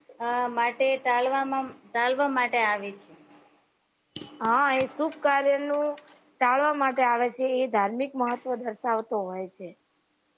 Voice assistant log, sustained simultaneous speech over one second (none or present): none